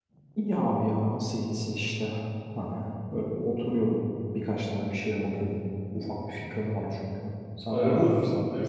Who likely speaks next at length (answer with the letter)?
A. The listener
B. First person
A